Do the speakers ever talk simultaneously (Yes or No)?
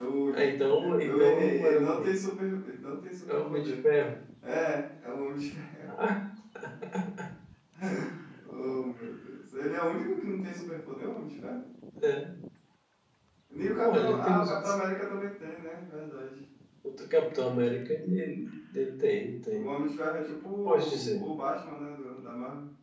Yes